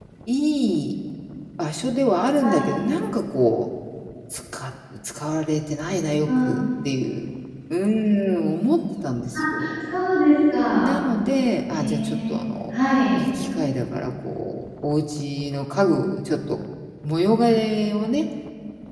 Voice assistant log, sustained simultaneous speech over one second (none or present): none